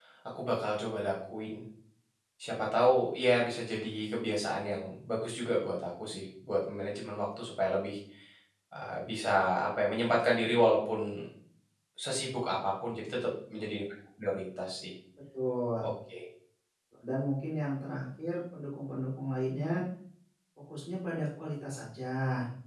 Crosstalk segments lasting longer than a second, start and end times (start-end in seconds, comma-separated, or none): none